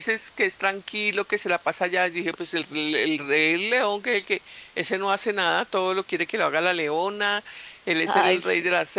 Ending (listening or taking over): listening